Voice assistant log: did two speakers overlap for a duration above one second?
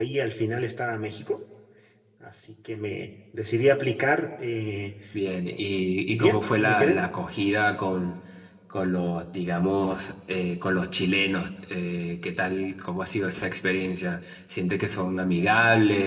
Yes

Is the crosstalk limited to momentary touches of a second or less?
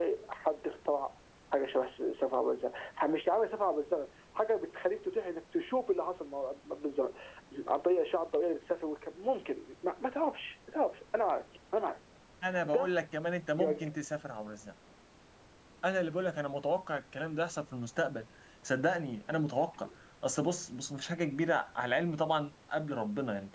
Yes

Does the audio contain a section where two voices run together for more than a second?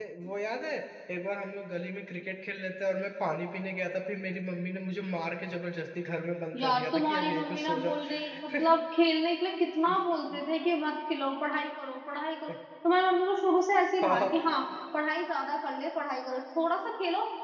Yes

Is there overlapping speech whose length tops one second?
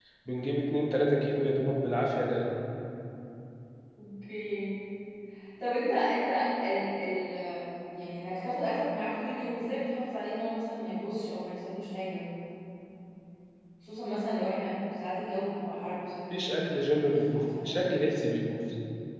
Yes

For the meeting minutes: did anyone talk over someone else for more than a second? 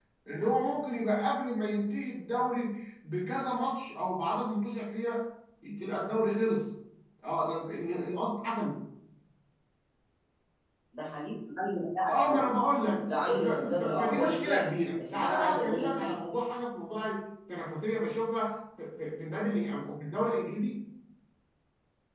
Yes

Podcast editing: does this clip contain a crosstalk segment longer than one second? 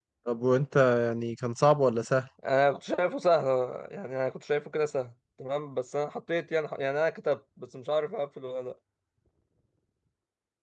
No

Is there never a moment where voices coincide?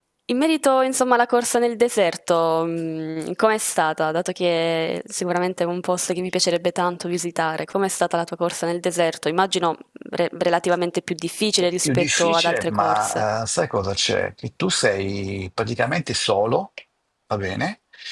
No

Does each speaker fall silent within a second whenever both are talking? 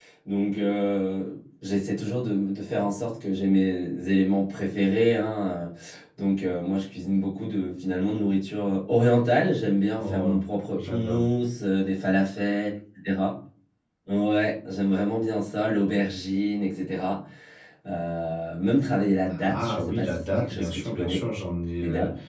No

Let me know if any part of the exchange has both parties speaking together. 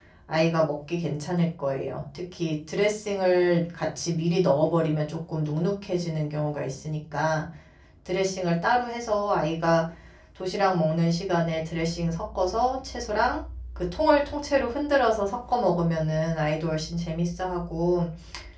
No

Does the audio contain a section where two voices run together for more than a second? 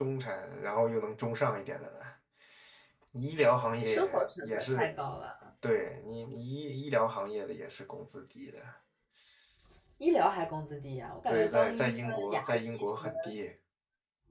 Yes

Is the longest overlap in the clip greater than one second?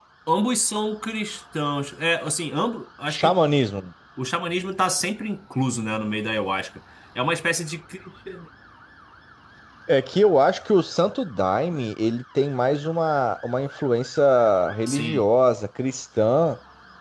No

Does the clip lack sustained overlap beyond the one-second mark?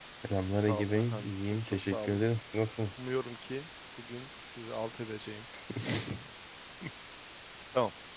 No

